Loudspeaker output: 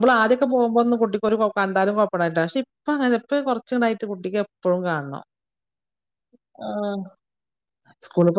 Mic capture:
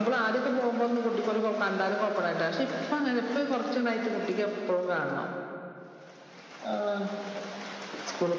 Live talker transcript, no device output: none

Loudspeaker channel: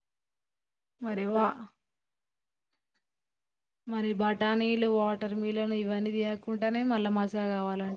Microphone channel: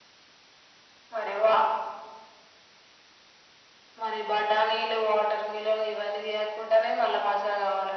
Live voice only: none

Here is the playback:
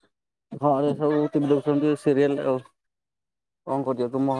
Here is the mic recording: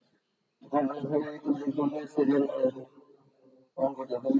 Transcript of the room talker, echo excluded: none

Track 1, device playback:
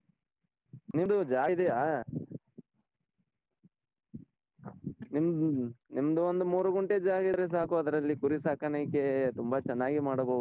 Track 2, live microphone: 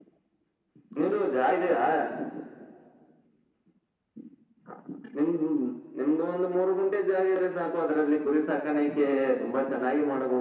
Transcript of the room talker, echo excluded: none

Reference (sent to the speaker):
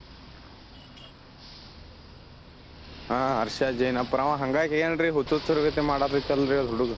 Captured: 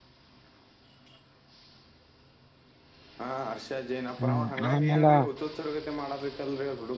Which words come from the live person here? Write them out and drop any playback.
ಹ್ಮ ಆಮೇಲೆ

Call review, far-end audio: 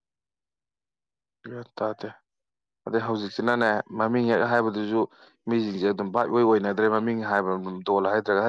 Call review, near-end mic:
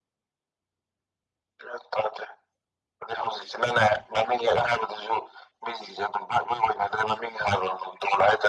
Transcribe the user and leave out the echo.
none

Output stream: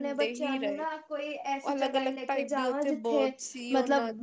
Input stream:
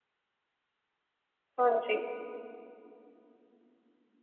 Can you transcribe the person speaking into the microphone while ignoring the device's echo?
ਹਾਂਜੀ

